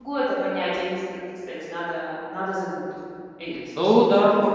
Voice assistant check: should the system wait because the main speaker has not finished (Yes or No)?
No